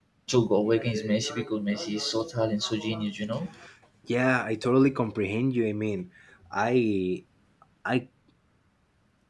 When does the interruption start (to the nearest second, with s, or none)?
none